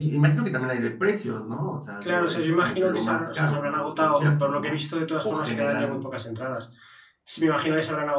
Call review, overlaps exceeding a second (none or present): present